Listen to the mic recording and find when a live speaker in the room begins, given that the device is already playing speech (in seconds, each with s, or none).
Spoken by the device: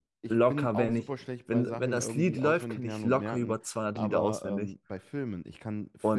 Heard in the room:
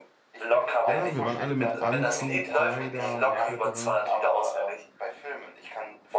0.9 s